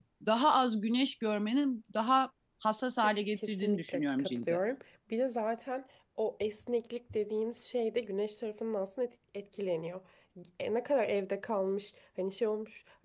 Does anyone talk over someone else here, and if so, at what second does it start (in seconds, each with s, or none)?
3.0 s